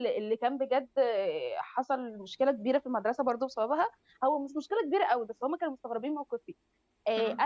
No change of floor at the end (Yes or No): Yes